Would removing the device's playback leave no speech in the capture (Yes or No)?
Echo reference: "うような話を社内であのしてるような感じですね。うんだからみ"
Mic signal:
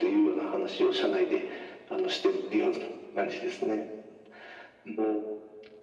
Yes